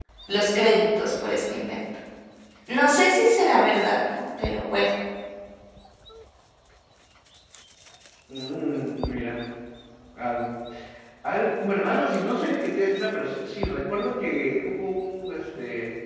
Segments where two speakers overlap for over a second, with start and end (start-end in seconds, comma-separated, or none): none